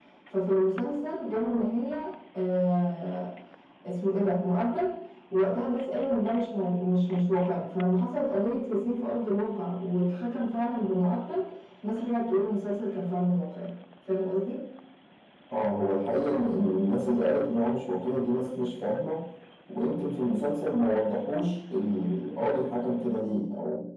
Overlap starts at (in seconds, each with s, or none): none